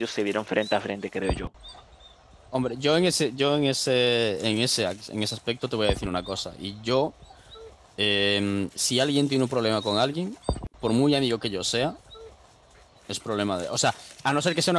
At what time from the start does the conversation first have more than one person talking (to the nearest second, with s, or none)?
none